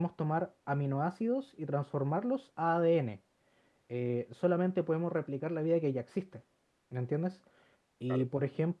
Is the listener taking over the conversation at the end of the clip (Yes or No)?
No